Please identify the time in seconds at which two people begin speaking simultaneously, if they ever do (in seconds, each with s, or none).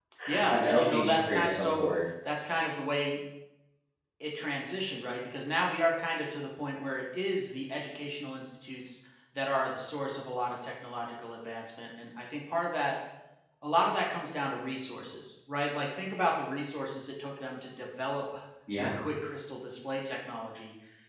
0.5 s